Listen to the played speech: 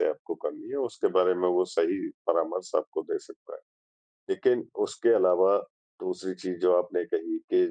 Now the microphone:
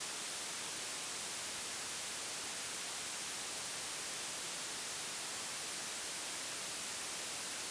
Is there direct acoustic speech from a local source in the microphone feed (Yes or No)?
No